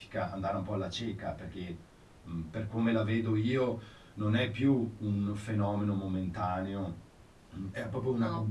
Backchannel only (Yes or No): Yes